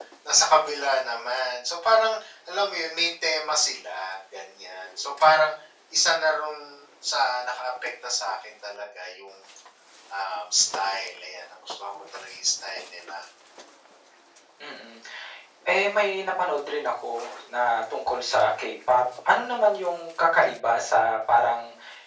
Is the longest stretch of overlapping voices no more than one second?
Yes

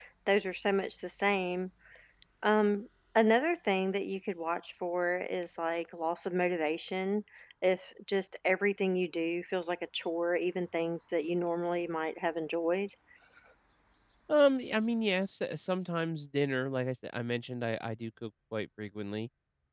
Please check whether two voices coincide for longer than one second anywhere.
No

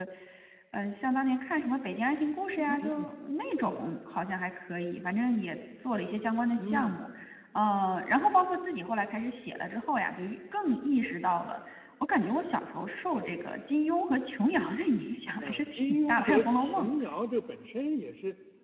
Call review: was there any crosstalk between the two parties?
Yes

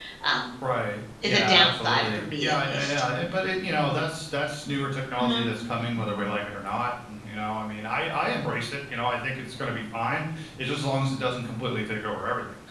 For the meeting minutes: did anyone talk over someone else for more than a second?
Yes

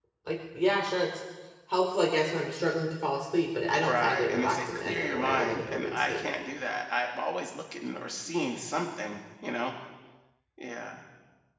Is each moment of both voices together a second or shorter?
No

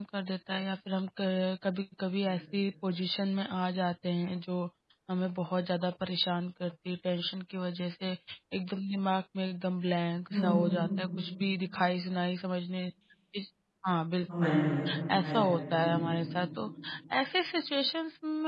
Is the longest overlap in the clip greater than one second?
No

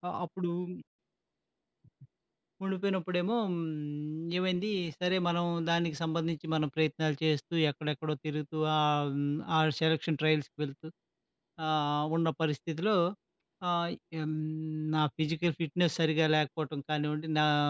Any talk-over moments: No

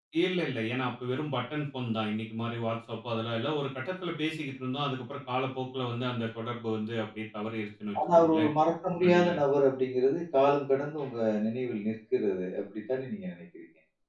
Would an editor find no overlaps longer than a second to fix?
Yes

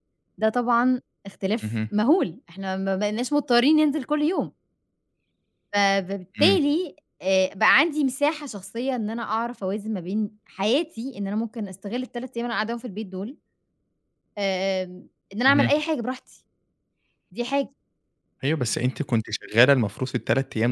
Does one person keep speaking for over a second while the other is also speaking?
No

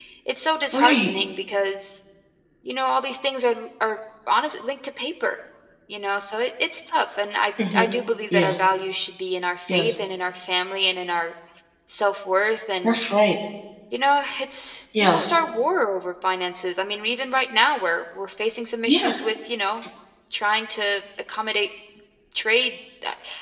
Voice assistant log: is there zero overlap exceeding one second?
Yes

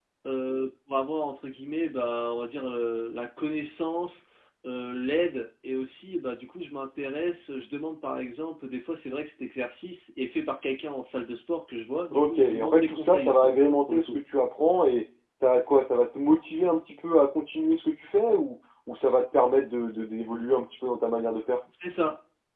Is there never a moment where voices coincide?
No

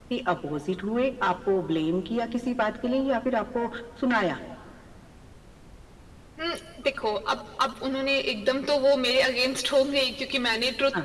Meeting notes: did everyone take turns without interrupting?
Yes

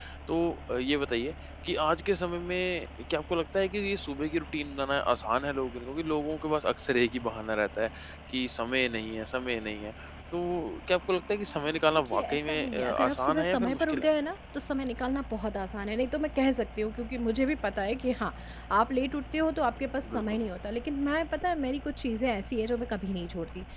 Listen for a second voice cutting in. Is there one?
Yes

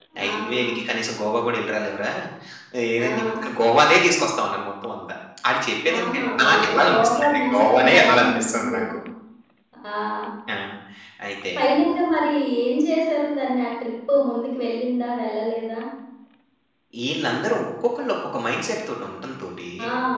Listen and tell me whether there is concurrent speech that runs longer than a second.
Yes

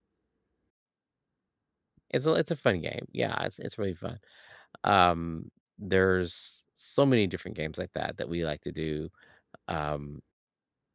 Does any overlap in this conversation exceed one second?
No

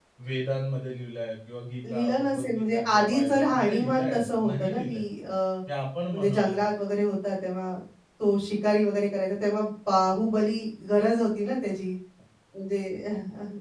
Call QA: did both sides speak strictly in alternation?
No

